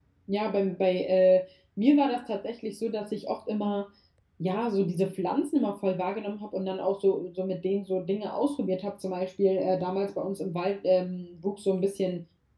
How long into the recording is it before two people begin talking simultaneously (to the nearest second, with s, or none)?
none